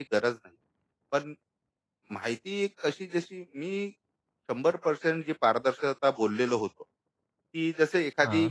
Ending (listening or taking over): listening